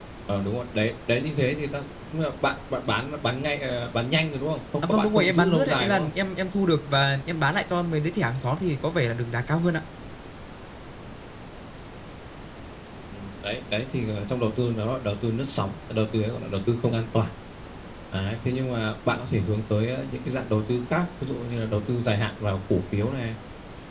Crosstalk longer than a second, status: present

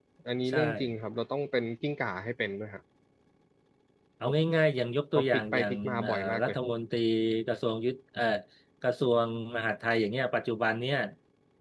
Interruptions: present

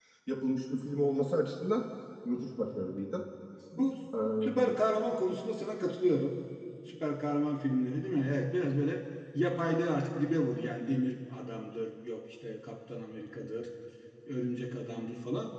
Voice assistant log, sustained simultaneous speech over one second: none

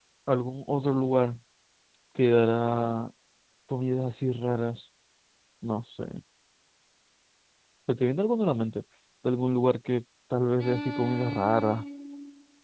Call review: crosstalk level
present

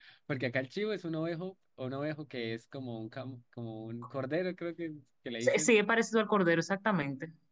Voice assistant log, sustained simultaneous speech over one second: none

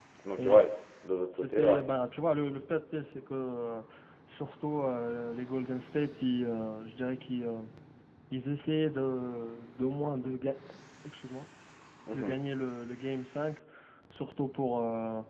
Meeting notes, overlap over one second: none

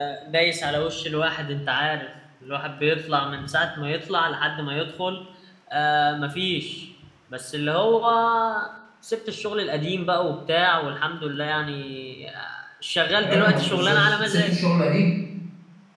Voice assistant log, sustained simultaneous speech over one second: present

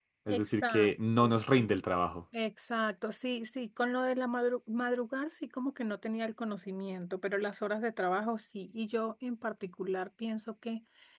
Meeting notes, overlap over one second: present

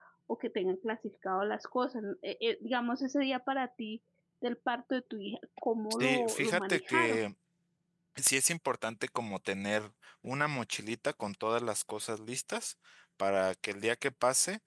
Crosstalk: present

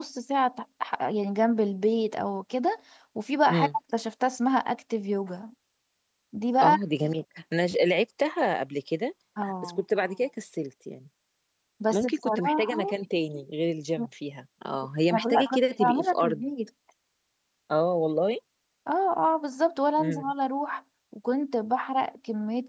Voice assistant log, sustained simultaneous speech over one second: present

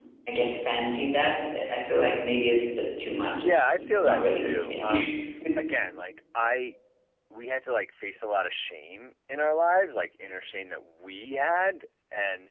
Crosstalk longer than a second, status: present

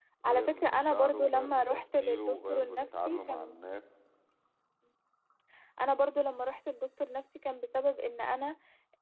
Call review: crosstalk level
present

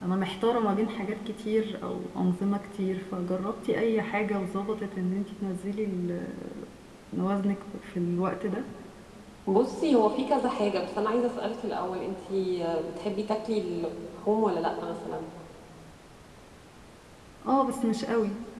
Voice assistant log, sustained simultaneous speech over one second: none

